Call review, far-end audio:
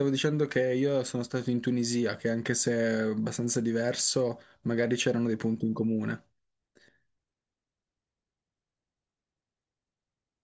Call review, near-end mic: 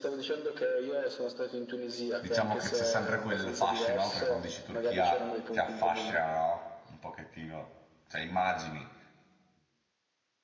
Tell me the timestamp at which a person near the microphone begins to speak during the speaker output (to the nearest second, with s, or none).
2 s